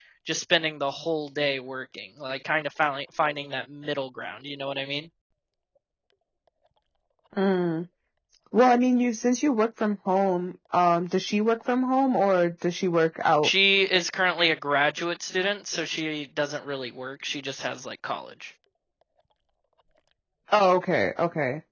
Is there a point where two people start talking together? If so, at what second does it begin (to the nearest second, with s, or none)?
none